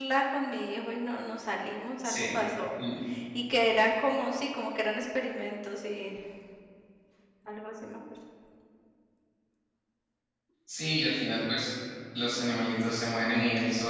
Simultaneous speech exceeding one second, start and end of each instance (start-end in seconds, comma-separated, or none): none